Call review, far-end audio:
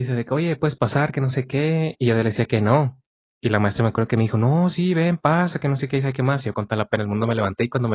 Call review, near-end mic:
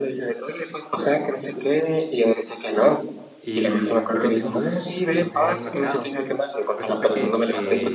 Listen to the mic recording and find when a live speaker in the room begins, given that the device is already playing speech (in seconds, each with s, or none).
3.4 s